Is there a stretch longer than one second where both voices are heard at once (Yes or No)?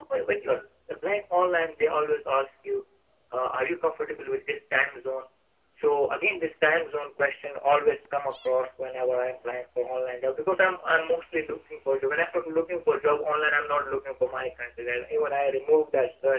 No